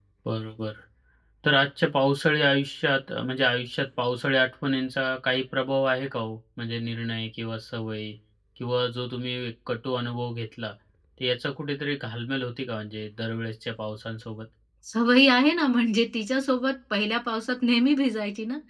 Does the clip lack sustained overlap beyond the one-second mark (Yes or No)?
Yes